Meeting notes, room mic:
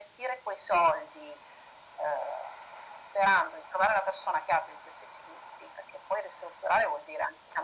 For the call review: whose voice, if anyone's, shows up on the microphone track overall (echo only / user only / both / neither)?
echo only